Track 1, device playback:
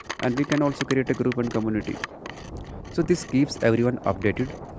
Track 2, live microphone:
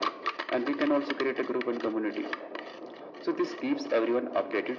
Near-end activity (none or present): none